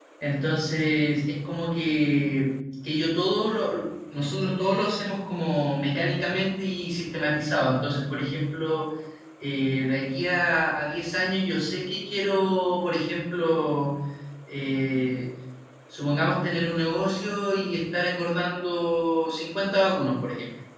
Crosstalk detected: No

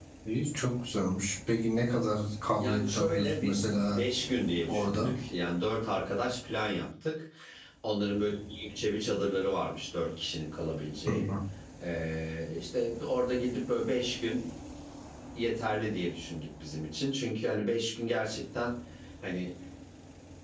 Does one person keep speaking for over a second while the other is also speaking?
Yes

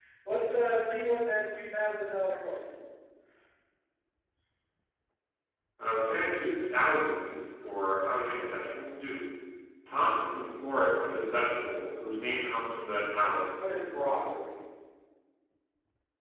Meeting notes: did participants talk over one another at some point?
No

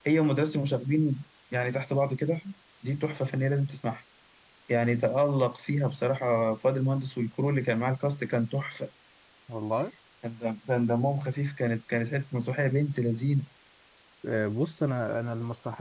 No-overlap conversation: Yes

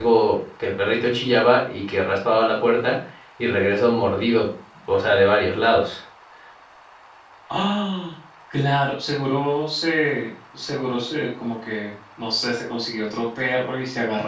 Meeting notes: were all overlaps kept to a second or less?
Yes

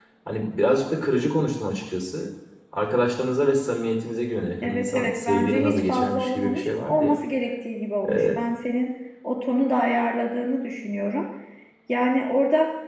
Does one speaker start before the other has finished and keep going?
Yes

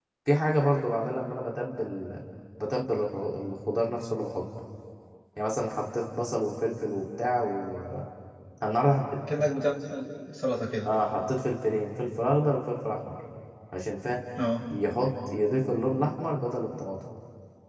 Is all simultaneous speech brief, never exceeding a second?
Yes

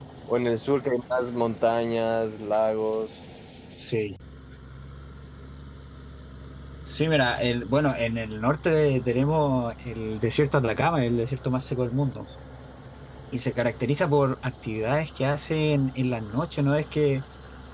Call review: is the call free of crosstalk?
Yes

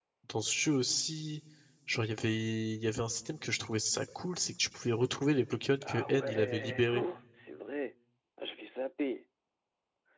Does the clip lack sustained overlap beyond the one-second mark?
No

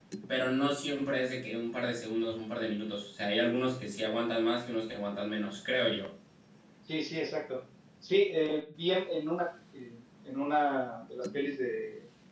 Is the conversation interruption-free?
Yes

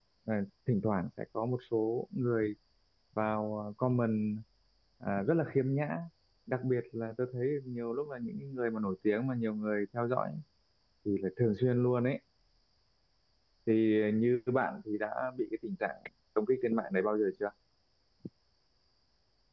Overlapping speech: No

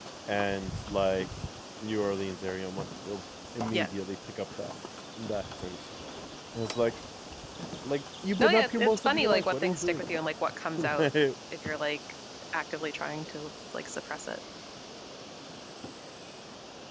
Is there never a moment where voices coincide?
No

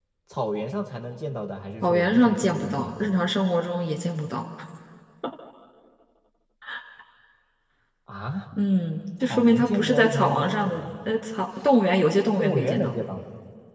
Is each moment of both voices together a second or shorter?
No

